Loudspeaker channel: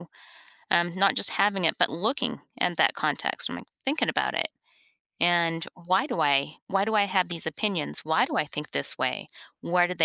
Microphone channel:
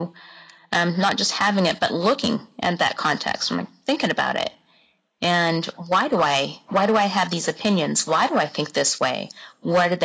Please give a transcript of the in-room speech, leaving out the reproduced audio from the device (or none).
none